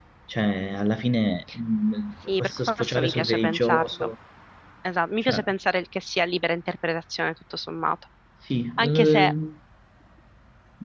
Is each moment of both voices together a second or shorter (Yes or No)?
No